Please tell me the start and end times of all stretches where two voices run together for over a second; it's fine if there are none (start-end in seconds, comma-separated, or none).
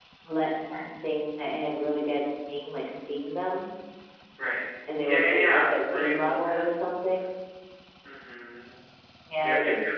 5.0-6.6